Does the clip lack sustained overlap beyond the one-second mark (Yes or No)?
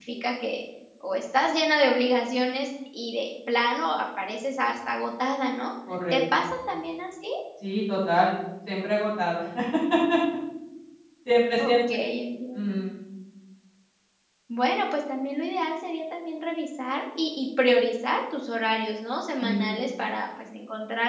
Yes